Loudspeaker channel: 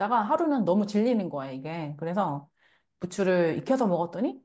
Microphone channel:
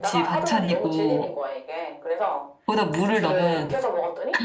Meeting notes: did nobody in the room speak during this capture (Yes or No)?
No